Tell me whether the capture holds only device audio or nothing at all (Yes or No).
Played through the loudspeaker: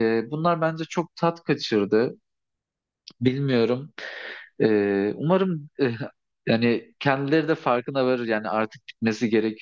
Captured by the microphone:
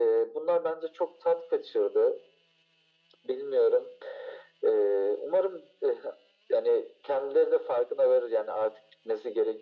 Yes